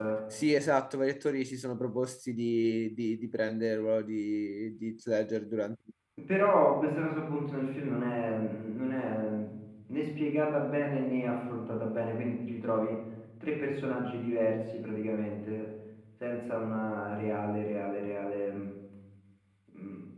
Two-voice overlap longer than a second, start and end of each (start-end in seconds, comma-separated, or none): none